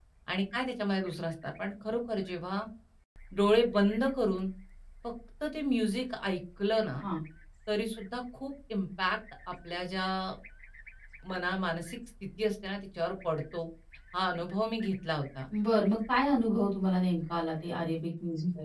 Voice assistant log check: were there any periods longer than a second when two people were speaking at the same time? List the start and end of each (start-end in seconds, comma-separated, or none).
none